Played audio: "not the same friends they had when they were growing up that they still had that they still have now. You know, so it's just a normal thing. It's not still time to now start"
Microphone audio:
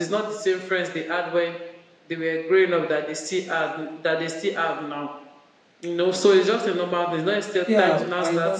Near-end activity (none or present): present